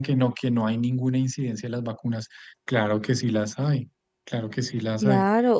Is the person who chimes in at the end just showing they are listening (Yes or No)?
No